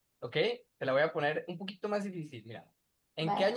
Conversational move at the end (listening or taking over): listening